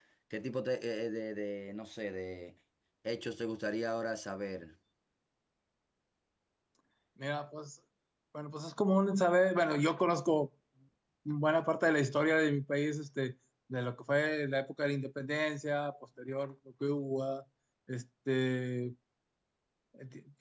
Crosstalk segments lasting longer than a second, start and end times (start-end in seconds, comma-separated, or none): none